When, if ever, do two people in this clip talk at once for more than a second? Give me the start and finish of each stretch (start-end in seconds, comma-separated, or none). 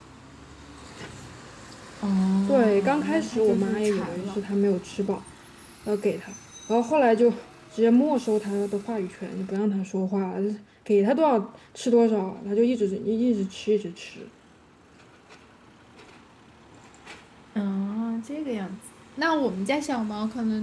2.5-4.4